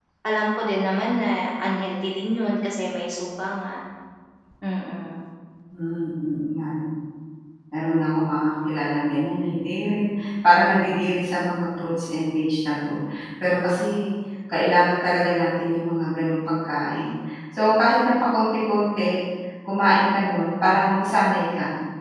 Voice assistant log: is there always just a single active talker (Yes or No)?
Yes